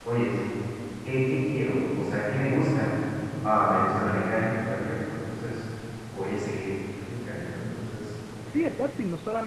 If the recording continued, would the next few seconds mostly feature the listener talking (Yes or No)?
Yes